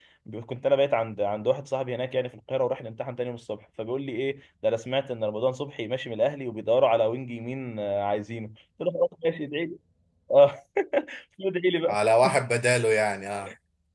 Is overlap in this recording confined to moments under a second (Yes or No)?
Yes